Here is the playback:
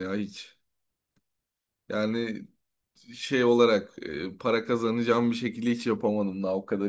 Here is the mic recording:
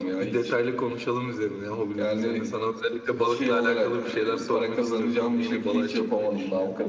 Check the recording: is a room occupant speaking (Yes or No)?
Yes